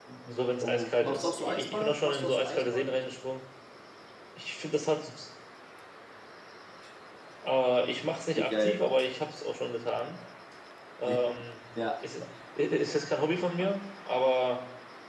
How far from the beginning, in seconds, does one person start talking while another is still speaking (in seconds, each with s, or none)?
0.6 s